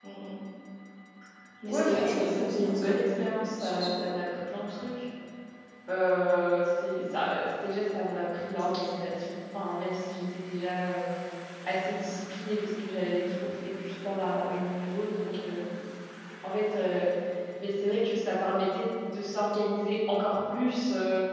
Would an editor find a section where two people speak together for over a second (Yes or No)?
Yes